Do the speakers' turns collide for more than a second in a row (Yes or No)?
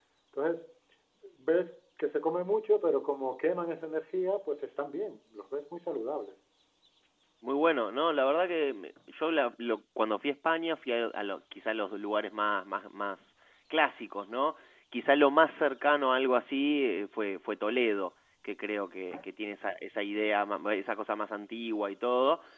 No